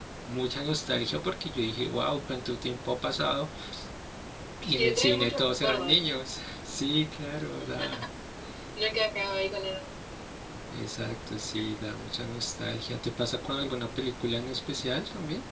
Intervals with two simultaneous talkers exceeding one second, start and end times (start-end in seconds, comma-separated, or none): 4.8-6.2